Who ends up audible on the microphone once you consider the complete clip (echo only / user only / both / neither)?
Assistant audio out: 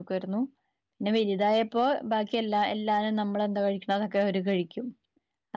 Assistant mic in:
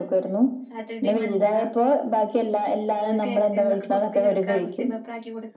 both